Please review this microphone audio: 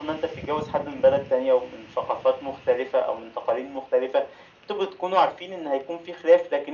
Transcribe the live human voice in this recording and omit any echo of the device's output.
none

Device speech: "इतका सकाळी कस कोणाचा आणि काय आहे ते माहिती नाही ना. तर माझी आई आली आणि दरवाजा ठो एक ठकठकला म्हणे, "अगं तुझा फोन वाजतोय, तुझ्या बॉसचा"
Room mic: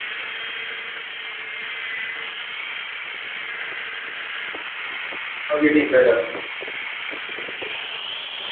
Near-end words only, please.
अगदी खरं.

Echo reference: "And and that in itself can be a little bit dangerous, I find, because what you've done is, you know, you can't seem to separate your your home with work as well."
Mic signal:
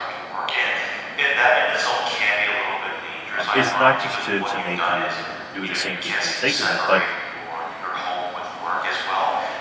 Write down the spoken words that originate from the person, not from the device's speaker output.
um, it's not just to to make you, you know, do the same thing for the sake of it, but

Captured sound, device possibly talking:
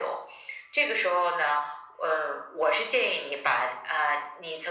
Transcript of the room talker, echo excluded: none

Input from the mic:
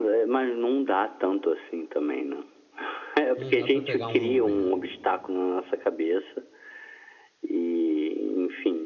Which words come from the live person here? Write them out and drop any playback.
Não dá pra pegar um Uber.

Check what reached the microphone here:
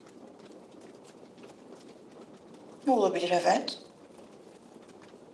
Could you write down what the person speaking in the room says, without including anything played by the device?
Olabilir, evet.

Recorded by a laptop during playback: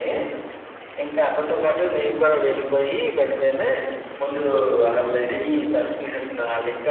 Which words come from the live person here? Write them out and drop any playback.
none

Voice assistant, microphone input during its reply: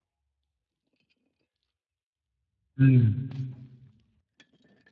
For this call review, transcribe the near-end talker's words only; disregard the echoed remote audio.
うん。

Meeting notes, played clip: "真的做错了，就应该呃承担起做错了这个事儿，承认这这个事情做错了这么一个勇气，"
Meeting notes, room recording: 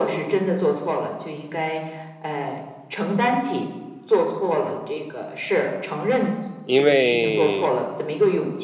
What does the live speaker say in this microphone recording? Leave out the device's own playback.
因为，

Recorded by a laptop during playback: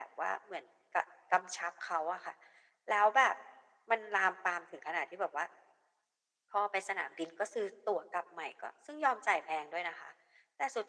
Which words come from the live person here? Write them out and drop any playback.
none

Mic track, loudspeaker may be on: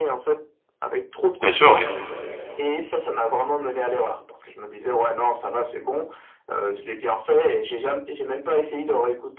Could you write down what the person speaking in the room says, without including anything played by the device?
bien sûr, oui.

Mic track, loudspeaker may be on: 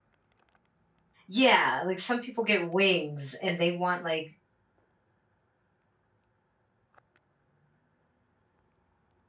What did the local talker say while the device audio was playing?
Yeah, like some people get wings and they want like

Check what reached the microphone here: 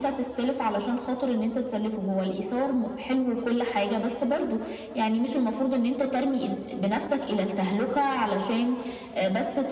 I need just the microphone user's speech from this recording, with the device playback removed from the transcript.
none

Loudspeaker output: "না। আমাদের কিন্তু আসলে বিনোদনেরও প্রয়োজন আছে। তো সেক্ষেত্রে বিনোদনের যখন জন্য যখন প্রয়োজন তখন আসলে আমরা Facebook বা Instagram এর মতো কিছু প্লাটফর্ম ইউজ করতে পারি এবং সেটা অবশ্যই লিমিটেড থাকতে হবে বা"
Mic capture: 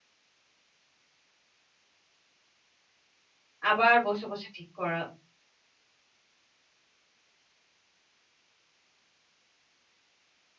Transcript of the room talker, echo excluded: আবার বসে, বসে ঠিক করা

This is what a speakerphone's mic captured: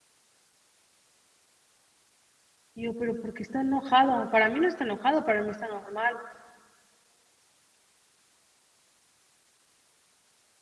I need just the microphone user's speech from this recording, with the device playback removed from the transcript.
Y yo: "Pero, ¿por qué está enojado? Para mí no está enojado, para mí está normal".

